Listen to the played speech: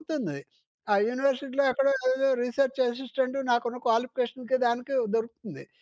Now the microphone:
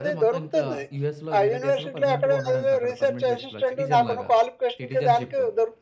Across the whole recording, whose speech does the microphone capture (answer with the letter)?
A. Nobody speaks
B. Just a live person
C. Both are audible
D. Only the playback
C